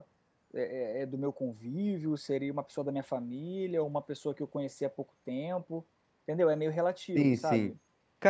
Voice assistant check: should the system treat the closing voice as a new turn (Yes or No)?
Yes